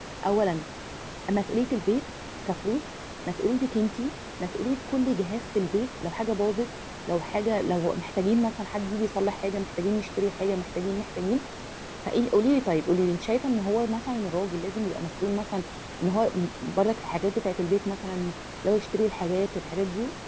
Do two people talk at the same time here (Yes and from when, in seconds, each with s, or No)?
No